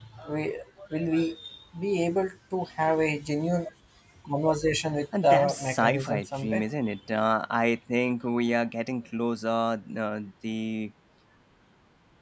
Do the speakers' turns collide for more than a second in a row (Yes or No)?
Yes